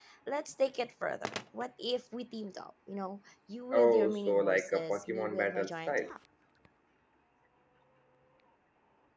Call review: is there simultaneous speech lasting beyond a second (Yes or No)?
Yes